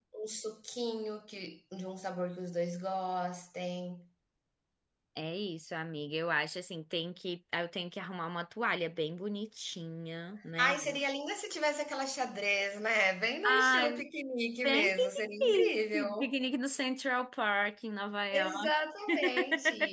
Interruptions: present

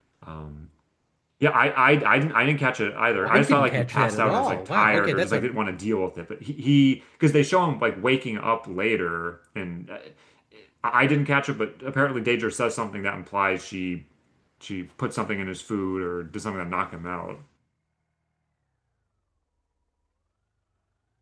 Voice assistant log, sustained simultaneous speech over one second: present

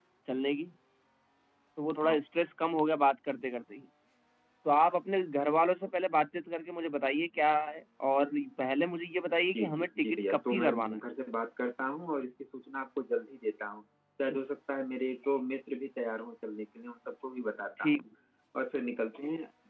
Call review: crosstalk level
present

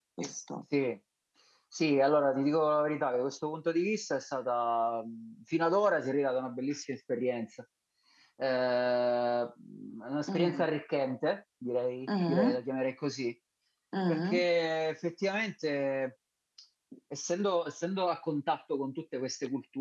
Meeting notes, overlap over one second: none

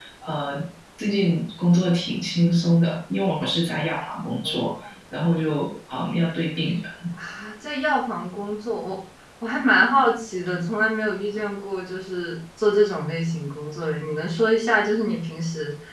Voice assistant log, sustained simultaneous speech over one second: none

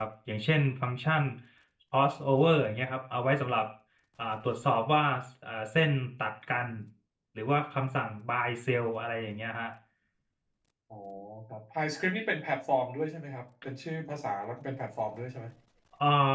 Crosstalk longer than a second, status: none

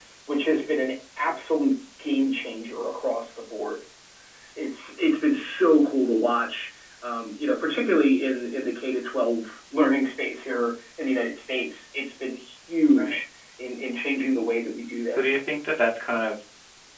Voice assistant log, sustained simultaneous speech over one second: none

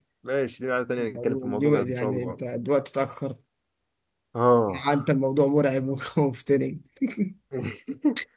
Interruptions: present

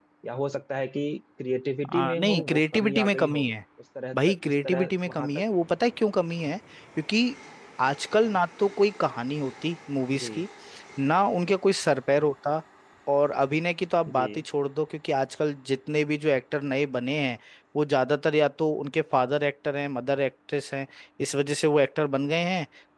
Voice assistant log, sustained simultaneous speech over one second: present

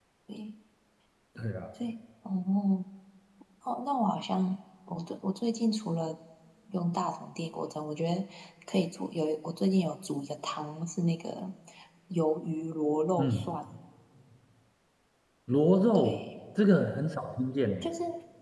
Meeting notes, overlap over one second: none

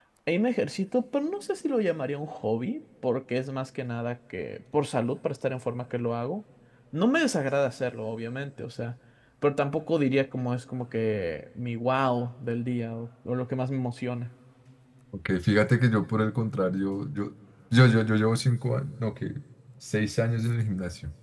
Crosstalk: none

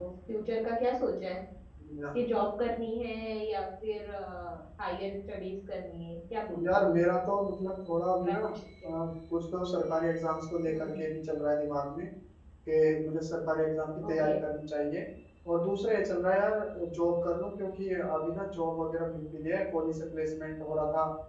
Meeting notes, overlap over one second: none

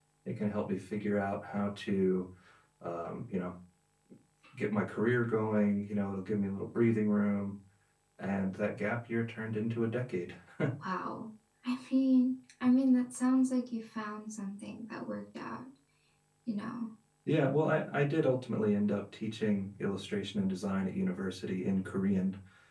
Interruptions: none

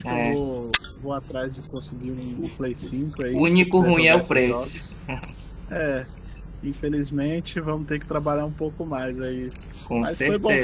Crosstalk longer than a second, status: present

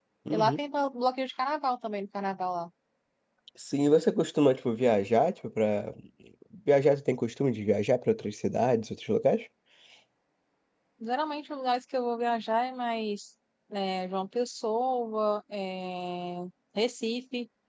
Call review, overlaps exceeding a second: none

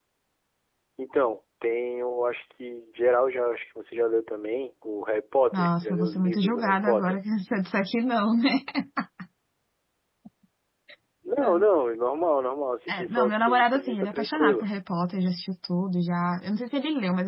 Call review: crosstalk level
present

